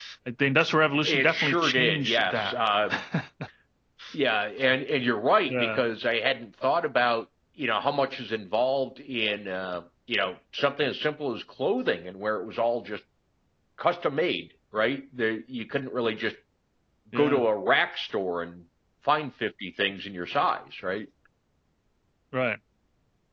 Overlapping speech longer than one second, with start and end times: 1.0-2.5

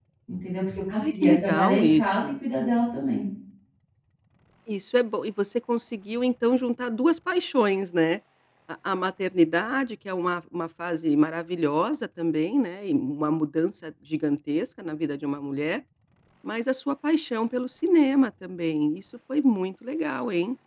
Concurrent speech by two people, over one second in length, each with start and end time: 0.9-2.3

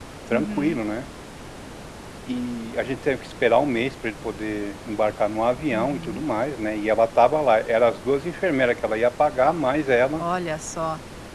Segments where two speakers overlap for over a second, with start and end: none

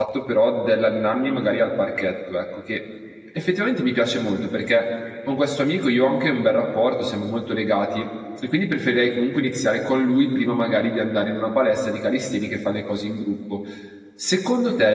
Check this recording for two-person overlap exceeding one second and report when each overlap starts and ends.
none

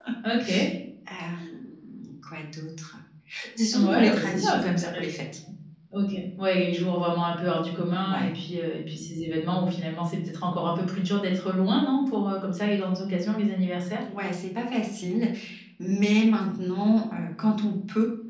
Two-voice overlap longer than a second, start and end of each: 3.7-5.1

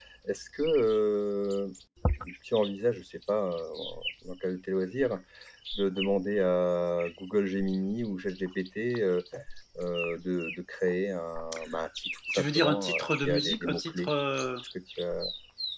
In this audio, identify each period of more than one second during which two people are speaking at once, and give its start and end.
12.3-14.1

